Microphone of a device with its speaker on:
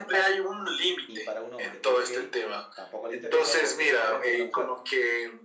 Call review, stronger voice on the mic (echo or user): echo